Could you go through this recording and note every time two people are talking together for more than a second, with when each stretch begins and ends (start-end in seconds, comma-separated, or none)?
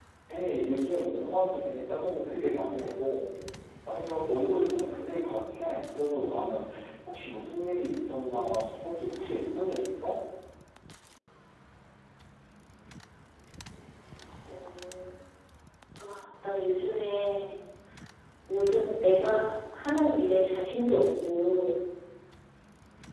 none